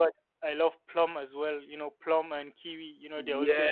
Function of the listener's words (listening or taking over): taking over